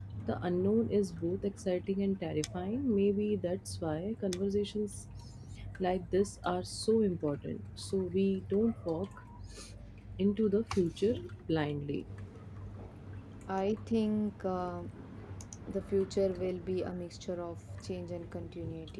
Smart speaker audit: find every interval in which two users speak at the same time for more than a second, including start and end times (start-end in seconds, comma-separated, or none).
none